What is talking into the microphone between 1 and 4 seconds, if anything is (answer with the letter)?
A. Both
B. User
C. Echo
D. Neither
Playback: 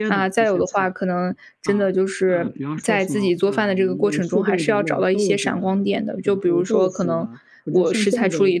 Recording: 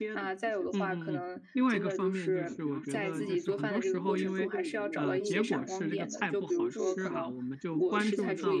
A